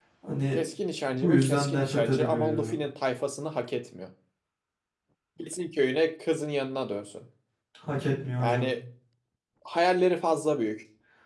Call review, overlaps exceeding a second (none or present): present